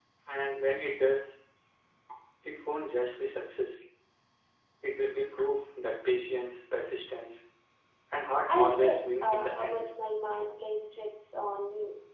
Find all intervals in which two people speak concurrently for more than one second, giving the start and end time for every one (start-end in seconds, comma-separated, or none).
8.5-9.9